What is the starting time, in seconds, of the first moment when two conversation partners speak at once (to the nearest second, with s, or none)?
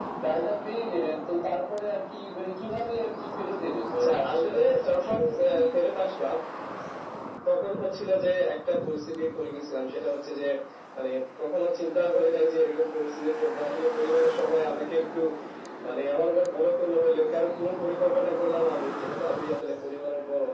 4 s